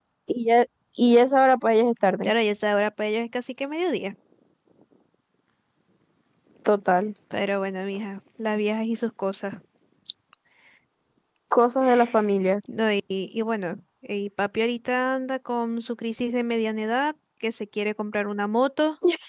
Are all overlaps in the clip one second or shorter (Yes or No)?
Yes